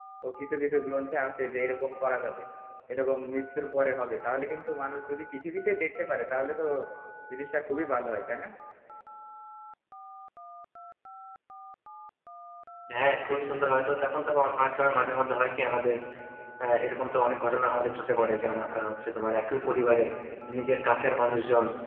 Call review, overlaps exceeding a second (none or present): none